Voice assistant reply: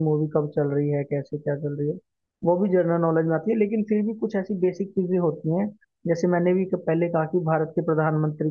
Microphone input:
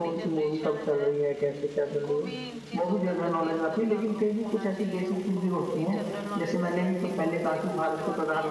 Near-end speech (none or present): present